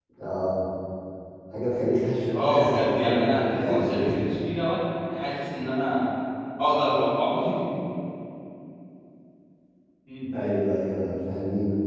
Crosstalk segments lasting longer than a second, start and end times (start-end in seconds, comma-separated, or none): 2.3-4.1